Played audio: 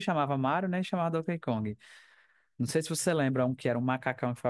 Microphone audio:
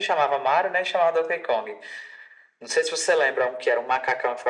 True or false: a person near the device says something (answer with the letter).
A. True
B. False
B